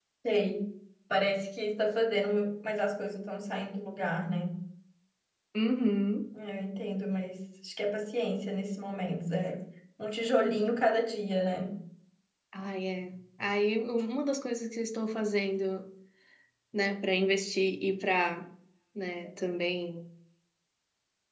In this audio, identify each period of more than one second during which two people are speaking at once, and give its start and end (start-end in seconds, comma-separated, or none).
none